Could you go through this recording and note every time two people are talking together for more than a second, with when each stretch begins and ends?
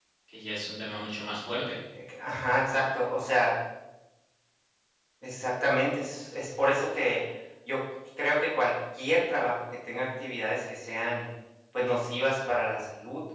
none

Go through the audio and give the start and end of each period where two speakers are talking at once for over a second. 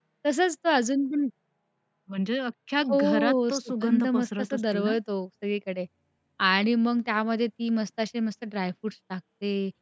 2.9-4.9

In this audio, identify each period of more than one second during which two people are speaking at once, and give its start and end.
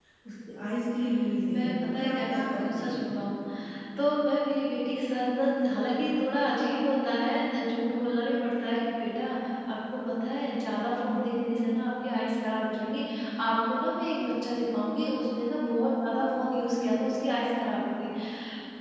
1.5-3.0

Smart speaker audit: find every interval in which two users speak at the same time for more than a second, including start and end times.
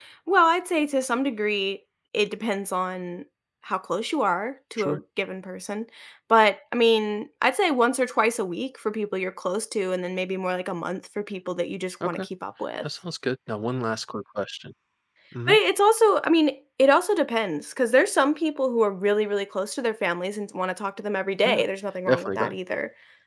none

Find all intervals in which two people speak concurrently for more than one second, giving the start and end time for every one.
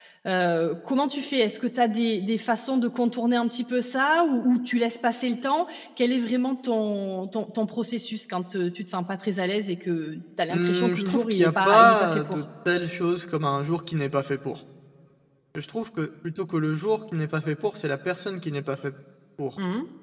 10.5-12.4

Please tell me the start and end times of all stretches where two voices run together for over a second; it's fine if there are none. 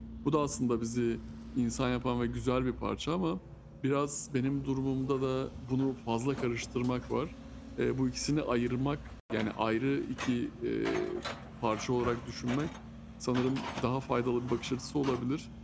none

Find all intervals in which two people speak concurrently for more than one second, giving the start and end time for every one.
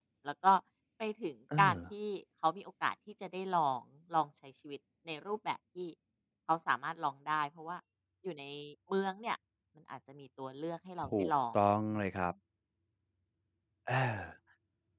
none

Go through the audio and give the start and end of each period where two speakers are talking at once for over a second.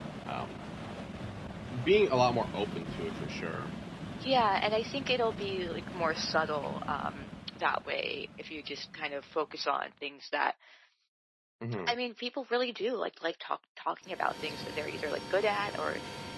none

